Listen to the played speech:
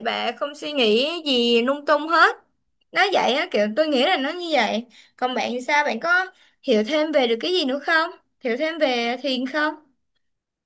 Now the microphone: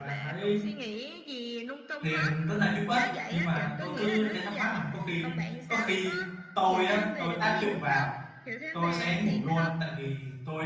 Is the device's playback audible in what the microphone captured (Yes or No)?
Yes